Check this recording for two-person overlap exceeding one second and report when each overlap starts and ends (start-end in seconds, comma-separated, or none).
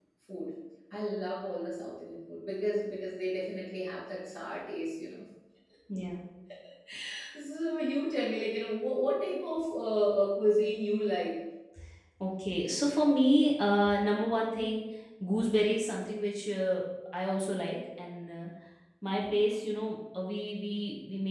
none